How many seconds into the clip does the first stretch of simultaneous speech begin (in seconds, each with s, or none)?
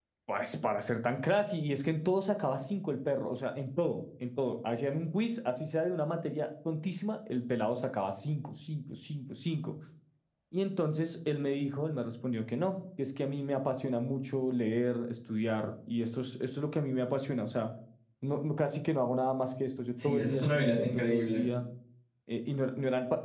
20.0 s